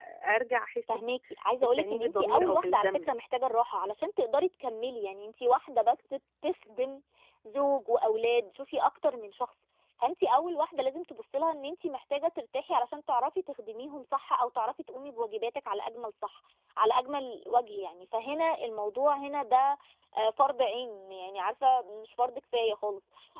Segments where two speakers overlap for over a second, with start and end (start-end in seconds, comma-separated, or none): 1.6-3.1